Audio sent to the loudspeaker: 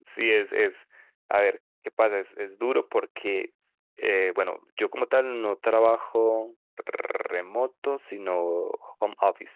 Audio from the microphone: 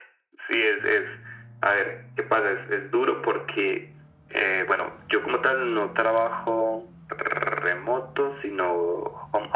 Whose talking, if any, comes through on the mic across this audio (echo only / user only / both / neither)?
echo only